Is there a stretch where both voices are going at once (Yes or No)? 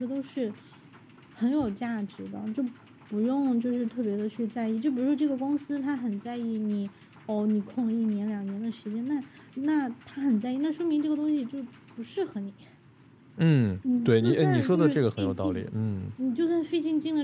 Yes